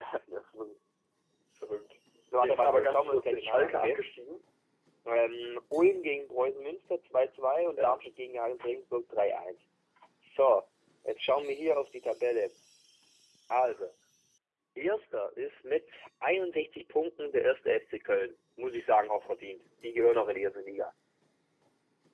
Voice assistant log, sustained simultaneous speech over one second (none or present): present